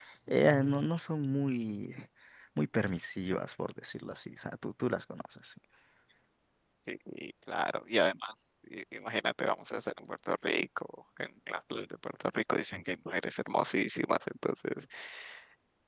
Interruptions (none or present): none